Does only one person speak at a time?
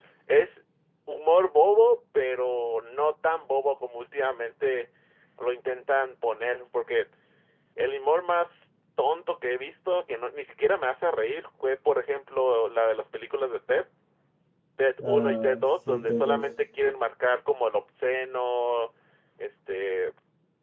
No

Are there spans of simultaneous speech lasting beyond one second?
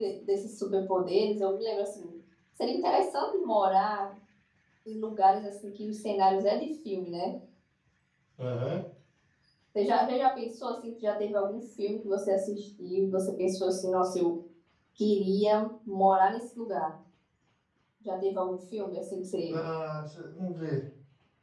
No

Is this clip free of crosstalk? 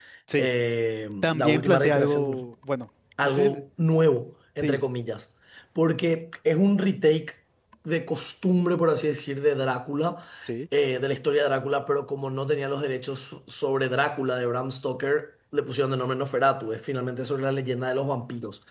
No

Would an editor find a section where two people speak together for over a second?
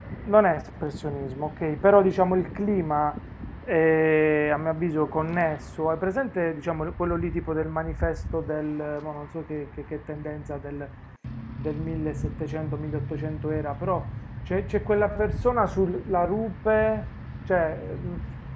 No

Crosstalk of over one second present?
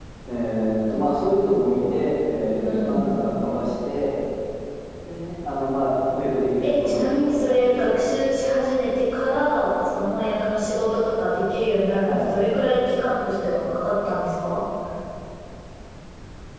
Yes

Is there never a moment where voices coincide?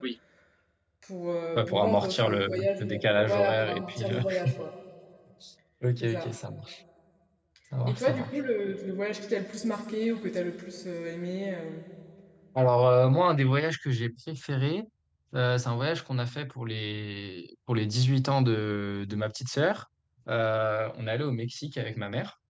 No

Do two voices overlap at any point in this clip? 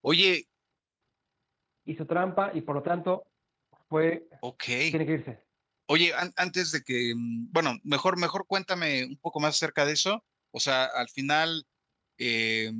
No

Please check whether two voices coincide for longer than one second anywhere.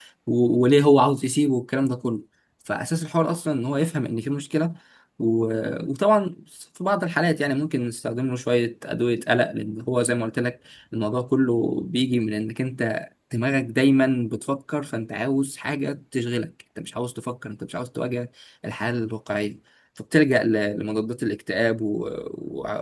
No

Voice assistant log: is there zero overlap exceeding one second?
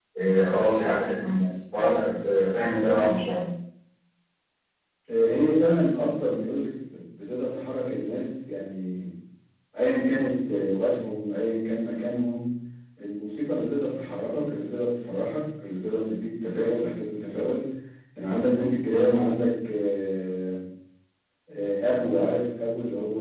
Yes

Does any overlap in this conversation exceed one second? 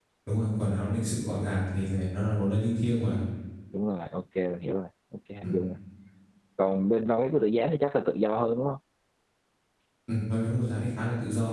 No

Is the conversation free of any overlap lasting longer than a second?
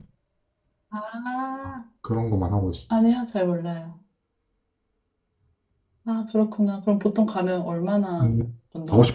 Yes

